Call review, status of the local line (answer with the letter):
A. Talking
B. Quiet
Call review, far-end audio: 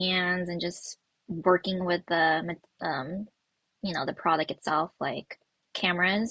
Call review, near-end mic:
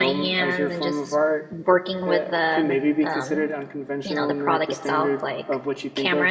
A